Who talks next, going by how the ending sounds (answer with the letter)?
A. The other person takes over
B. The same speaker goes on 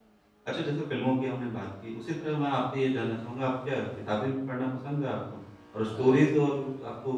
B